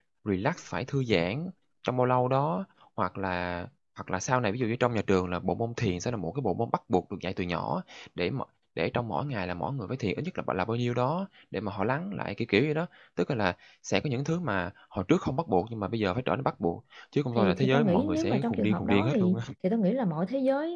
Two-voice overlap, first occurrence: 17.4 s

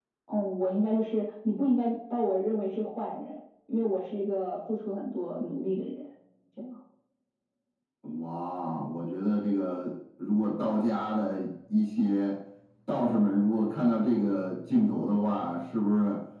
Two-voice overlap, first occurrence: none

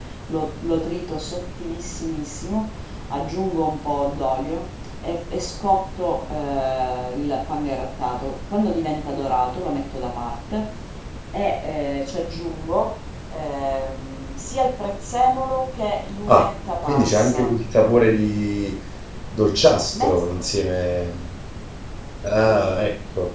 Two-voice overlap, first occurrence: 16.3 s

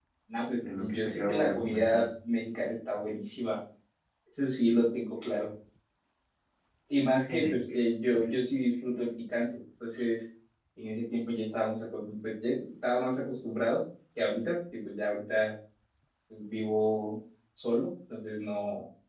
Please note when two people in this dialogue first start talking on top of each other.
0.6 s

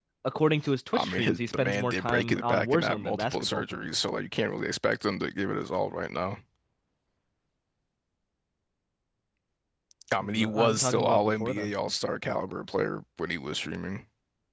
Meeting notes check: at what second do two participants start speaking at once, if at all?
0.9 s

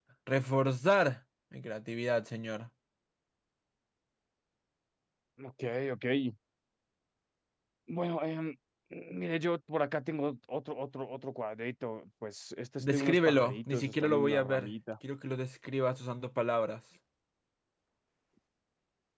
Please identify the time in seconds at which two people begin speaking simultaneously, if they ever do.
12.8 s

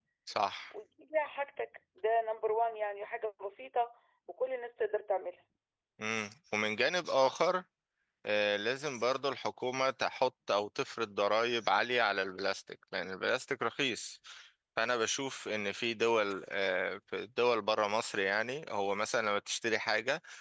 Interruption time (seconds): none

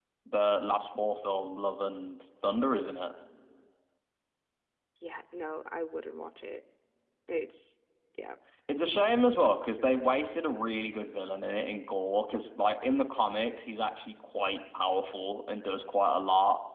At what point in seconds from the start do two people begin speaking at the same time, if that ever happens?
none

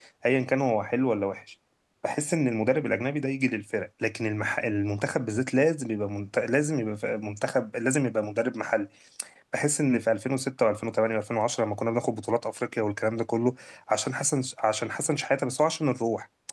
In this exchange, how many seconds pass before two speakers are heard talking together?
none

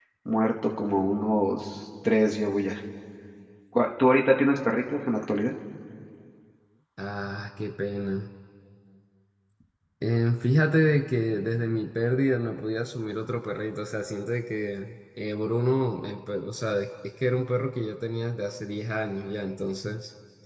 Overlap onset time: none

